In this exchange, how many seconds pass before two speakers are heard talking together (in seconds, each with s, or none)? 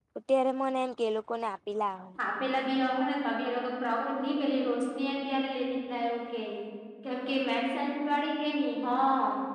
none